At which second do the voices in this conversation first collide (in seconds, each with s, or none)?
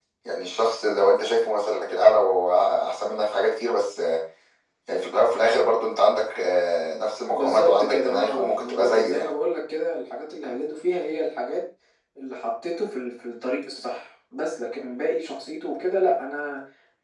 7.3 s